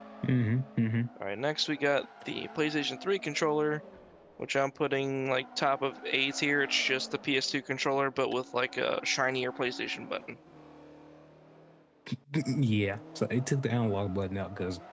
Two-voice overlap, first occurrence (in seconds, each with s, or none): none